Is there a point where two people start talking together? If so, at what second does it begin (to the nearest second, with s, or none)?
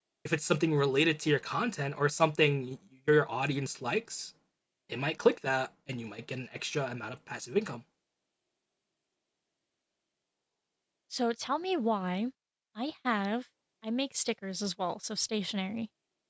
none